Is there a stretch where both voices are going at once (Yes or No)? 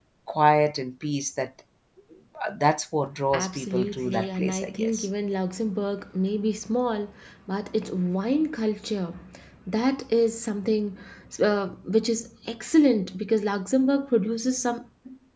Yes